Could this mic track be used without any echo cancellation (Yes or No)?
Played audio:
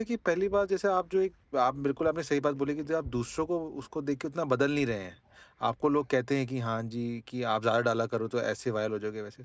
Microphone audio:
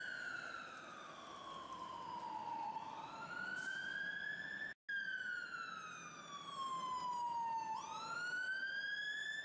Yes